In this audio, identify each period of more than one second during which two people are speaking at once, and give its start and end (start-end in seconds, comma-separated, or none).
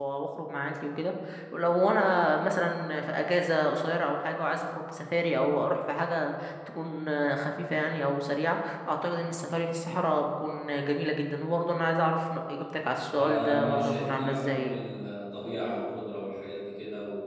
13.2-14.8